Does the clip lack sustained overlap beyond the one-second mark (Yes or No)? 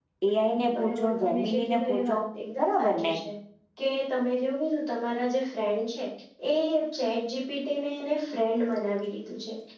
No